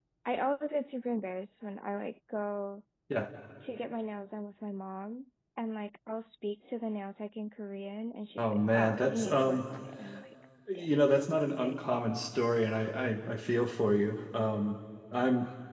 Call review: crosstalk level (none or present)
present